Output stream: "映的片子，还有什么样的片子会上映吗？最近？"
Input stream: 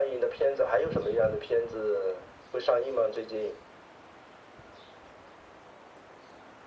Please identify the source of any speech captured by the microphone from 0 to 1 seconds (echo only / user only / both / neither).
echo only